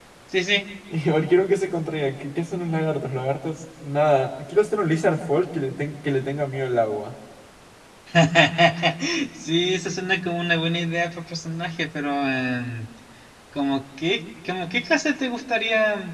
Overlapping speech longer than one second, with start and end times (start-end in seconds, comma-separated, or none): none